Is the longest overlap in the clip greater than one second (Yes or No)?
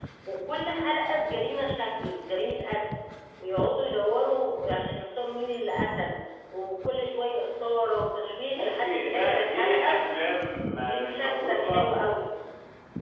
Yes